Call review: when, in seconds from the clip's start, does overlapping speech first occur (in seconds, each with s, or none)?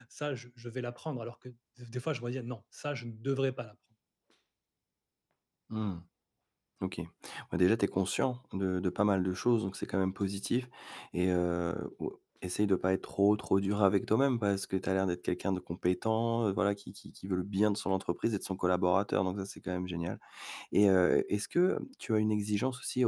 none